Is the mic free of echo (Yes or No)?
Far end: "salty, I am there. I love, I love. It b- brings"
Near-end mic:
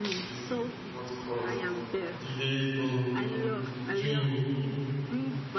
No